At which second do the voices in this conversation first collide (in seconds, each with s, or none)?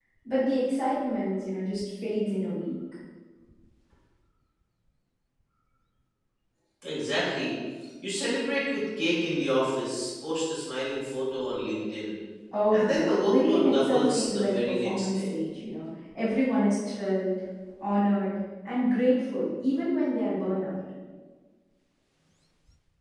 12.7 s